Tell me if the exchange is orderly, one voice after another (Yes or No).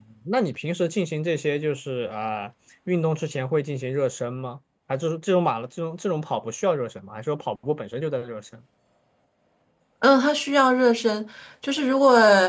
Yes